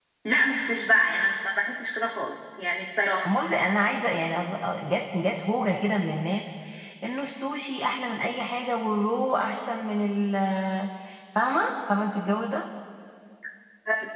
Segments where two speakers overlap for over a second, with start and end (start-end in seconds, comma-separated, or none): none